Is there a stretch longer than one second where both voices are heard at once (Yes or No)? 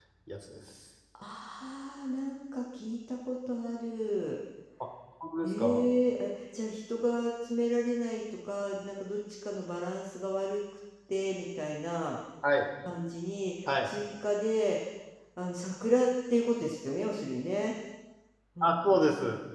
No